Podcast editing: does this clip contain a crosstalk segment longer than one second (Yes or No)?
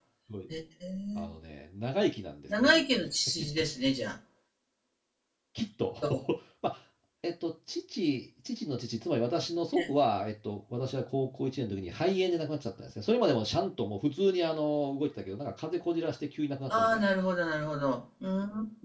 No